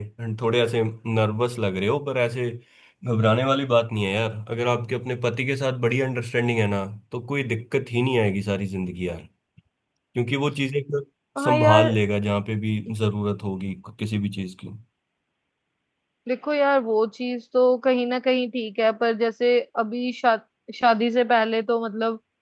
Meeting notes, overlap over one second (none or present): none